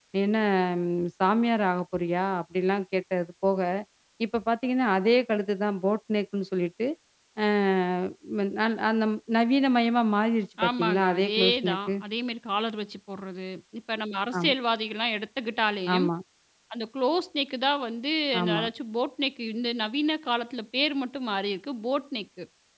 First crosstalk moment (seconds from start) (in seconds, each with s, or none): 10.7 s